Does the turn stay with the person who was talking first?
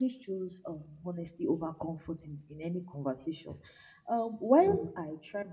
Yes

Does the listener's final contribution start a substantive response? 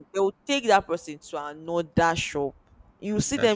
No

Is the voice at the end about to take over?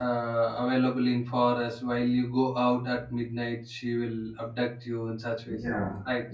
Yes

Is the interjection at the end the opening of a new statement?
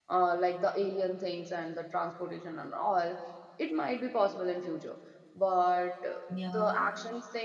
No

